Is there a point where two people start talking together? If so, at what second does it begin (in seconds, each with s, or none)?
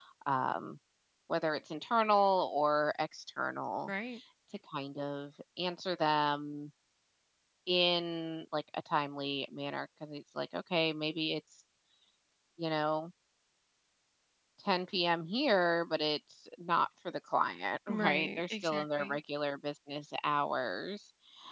17.9 s